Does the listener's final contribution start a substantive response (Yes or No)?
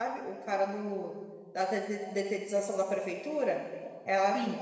No